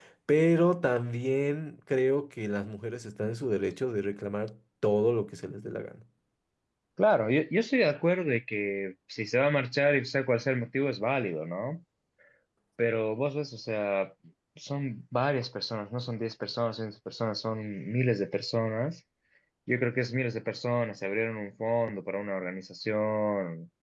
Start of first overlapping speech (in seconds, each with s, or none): none